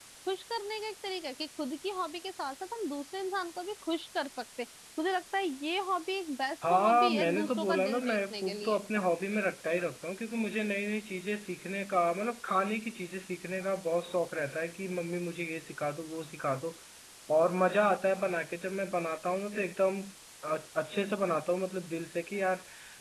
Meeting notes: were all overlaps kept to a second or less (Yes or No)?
No